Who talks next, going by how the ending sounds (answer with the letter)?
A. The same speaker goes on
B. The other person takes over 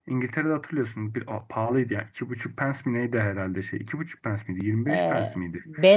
B